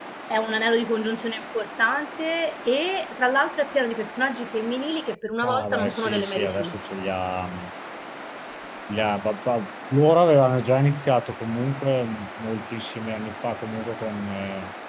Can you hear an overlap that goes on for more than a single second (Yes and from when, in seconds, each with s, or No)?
Yes, from 5.4 s